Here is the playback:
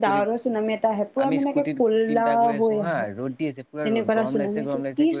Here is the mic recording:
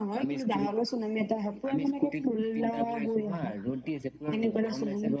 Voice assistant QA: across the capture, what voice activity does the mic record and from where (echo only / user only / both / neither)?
echo only